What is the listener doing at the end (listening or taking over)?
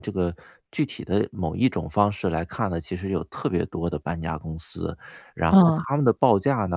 listening